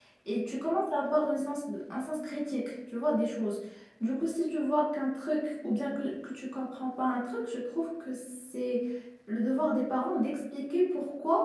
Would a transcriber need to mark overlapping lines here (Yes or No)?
No